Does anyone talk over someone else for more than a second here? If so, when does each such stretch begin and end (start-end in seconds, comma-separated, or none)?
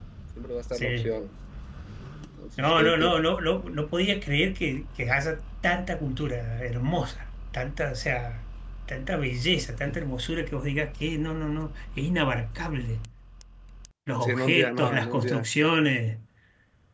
14.2-15.4